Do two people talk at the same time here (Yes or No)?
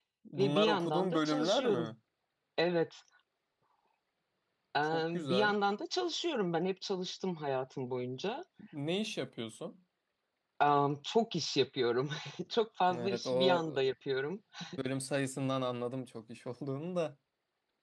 Yes